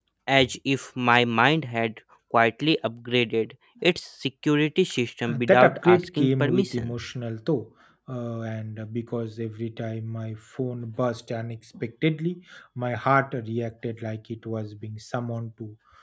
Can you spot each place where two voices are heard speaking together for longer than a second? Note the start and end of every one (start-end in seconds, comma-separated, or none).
5.2-7.0